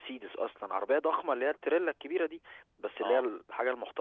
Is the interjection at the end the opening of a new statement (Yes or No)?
No